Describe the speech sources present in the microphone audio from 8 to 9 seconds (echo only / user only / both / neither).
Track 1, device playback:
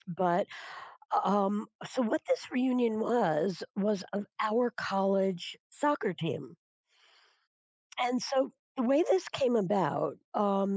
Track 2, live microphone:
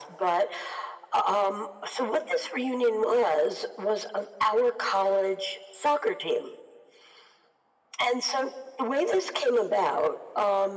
echo only